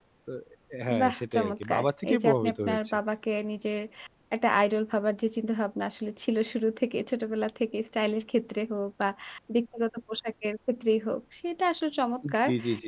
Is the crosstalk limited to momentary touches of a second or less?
No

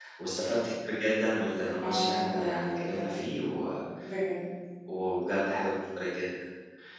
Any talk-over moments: Yes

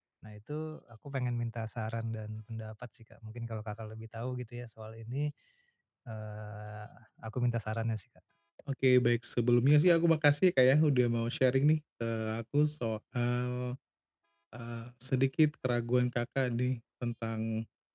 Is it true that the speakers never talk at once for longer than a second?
Yes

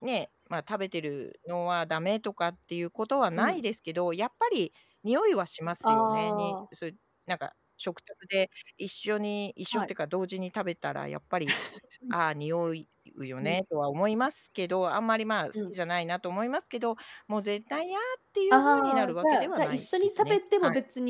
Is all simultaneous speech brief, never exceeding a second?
No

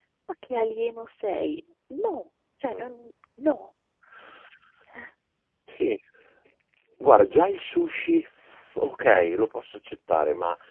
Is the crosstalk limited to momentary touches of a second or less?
Yes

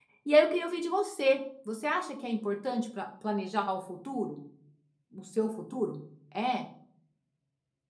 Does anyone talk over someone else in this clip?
No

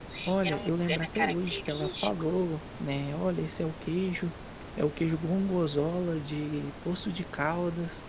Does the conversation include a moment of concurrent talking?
Yes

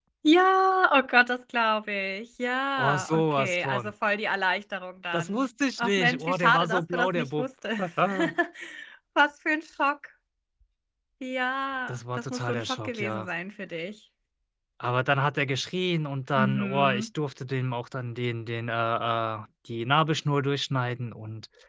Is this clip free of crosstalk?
No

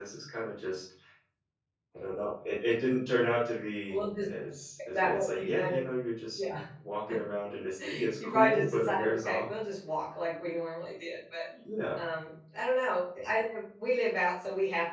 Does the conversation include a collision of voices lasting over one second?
Yes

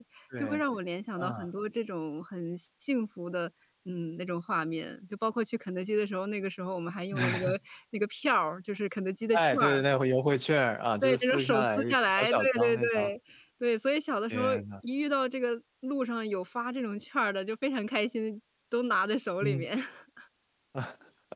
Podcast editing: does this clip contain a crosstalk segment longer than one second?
Yes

